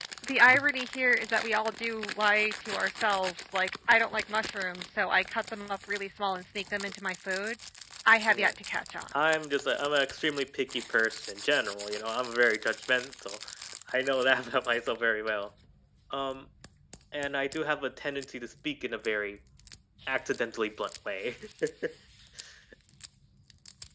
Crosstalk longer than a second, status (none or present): none